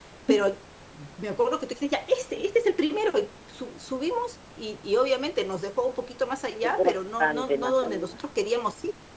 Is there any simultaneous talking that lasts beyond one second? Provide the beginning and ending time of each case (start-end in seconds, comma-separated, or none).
6.6-8.2